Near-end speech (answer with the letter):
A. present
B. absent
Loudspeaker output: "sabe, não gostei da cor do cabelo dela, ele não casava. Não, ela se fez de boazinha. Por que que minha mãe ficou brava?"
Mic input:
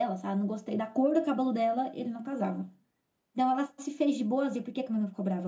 B